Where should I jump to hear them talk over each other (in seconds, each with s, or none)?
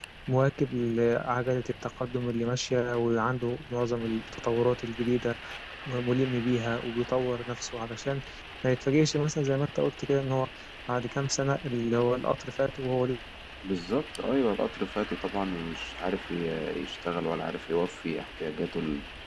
none